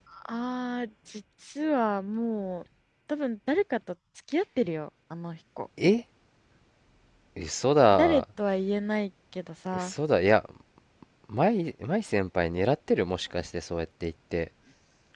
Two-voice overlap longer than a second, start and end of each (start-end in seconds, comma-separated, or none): none